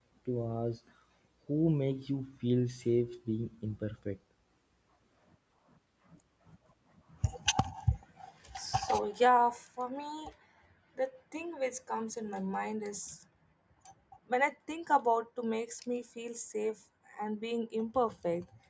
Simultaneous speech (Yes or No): No